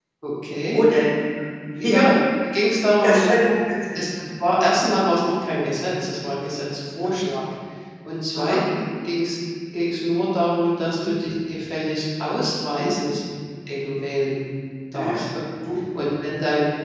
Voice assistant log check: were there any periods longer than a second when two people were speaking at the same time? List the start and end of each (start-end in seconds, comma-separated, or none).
none